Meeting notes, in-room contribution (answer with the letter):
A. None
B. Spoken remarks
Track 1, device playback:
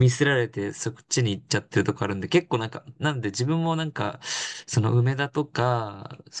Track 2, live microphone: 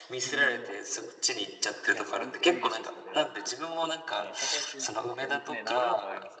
B